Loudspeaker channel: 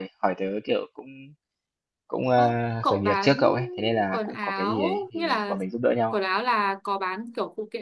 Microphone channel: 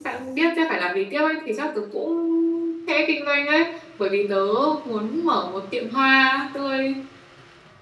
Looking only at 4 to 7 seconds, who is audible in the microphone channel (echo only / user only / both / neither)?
user only